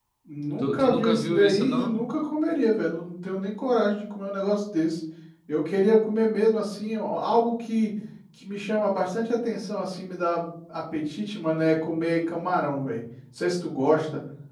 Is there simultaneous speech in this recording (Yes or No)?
Yes